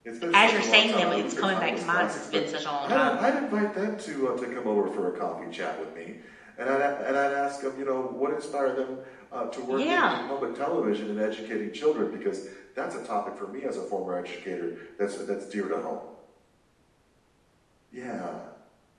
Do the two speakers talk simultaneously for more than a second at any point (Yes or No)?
Yes